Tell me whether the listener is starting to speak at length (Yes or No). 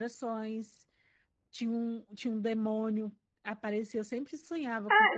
Yes